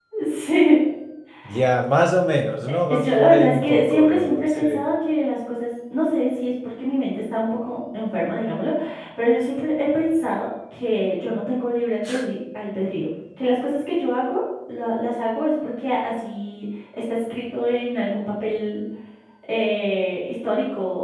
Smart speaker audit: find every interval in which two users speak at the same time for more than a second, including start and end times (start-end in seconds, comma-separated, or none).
2.9-4.8